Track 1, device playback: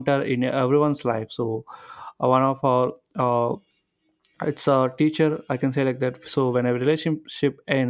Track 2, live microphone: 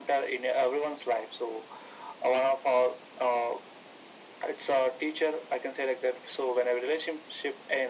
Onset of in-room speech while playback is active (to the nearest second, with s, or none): none